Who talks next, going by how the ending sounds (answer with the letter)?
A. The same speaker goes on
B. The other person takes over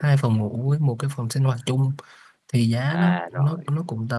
A